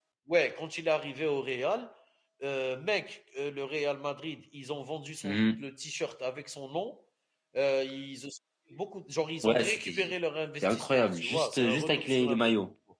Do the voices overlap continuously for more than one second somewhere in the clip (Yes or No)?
Yes